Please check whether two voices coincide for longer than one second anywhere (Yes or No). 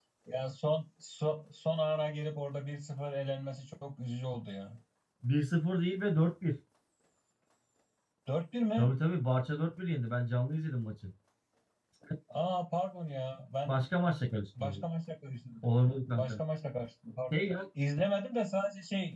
No